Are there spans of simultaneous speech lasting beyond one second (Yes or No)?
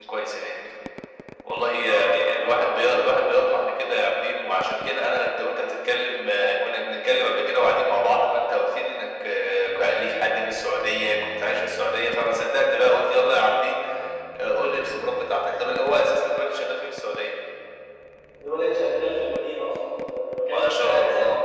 Yes